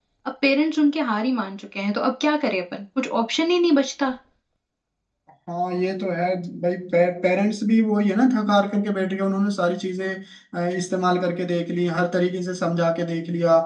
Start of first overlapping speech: none

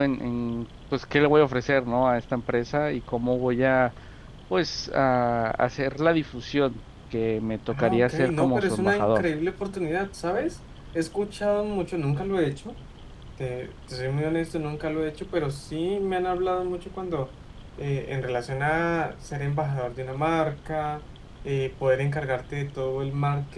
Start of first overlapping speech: 7.7 s

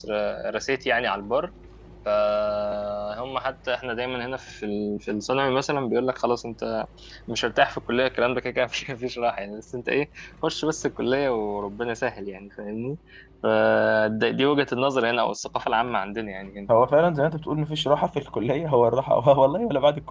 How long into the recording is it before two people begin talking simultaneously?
none

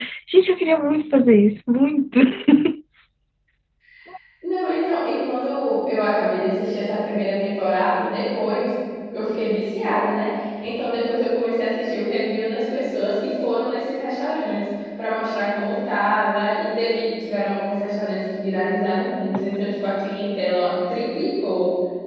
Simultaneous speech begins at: none

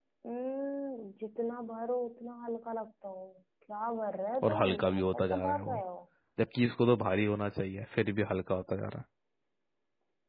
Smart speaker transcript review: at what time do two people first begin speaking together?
4.4 s

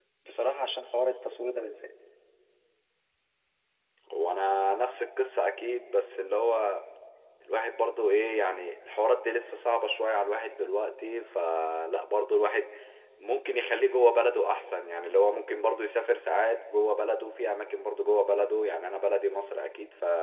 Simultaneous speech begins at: none

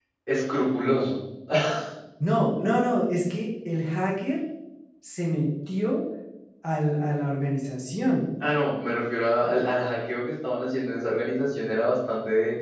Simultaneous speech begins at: none

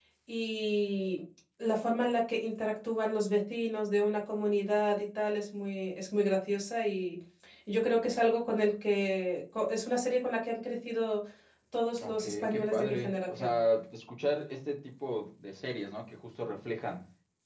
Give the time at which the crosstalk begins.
12.0 s

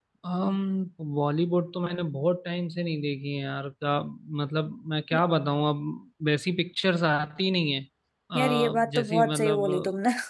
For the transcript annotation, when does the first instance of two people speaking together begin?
8.3 s

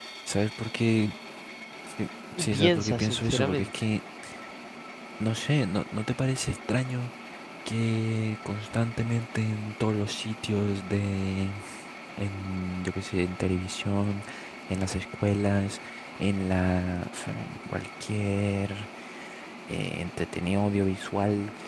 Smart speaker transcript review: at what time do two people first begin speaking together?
2.4 s

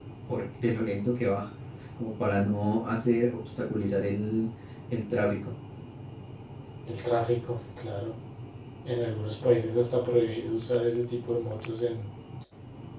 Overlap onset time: none

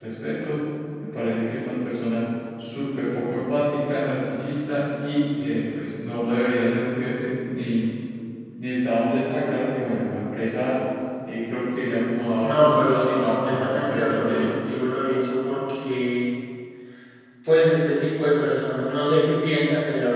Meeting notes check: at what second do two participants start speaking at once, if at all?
12.4 s

